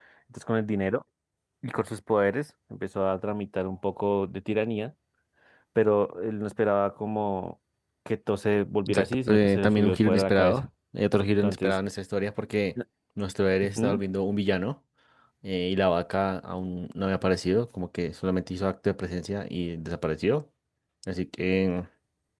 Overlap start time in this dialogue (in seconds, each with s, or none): 8.9 s